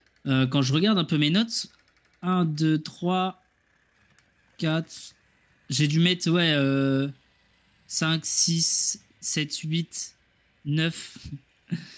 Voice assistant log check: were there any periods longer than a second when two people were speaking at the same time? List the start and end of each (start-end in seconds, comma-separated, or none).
none